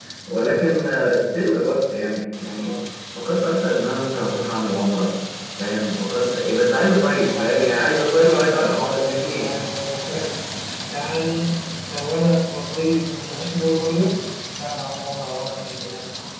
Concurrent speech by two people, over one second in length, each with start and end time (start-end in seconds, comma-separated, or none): 7.1-9.5